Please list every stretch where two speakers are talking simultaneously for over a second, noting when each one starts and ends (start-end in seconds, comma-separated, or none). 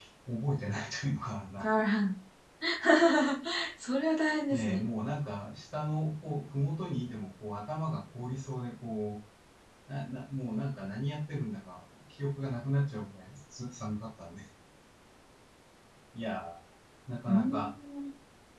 none